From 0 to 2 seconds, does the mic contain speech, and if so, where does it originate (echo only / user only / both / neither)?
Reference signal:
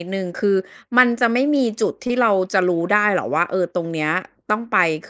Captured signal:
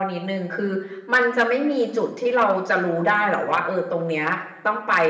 echo only